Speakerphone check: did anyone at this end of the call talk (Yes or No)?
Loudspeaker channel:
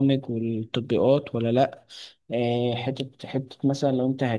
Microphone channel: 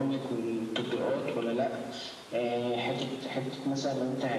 No